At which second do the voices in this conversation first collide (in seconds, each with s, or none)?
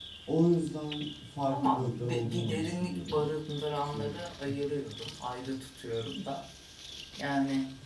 1.5 s